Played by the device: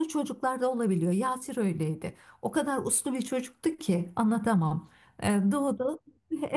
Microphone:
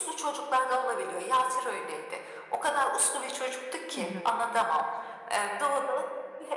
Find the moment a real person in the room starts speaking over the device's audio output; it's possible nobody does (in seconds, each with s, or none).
4.0 s